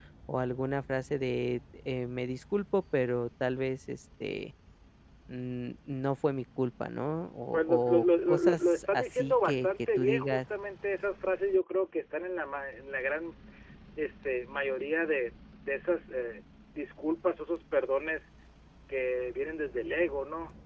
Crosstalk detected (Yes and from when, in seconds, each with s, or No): Yes, from 7.5 s